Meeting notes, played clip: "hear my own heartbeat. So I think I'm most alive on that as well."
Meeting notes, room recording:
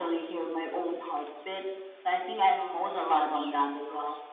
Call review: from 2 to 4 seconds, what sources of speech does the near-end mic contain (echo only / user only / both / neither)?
echo only